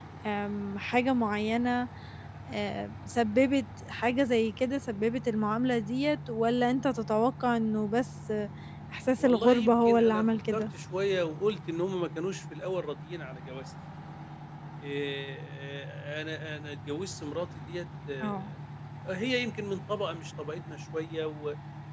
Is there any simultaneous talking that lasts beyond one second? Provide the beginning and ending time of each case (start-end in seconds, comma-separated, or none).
9.2-10.6